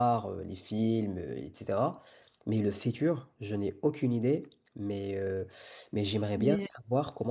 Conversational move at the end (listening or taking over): listening